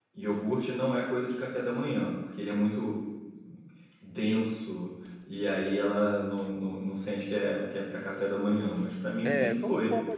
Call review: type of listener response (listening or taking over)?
taking over